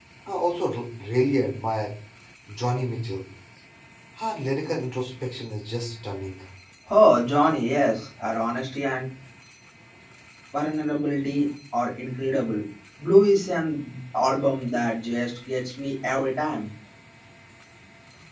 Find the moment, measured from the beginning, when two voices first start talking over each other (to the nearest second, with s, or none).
none